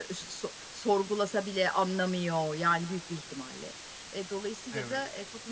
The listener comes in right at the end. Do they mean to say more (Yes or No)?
No